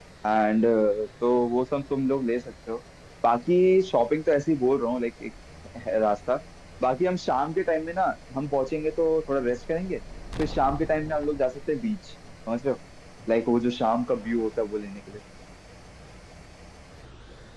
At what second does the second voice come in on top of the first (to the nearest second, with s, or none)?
none